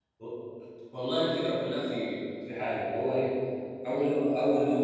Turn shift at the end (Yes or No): No